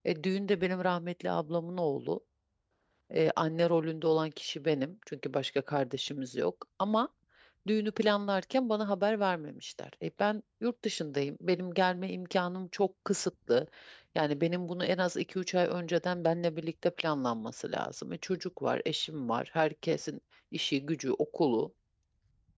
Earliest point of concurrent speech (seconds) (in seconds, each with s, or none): none